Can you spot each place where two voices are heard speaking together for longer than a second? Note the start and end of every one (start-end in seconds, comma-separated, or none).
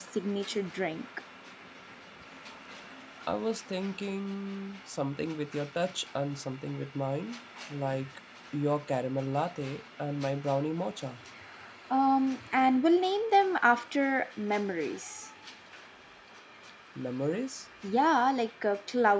none